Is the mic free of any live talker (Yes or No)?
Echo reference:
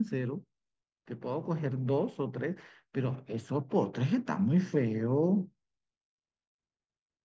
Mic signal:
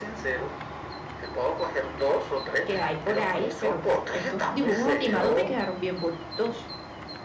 No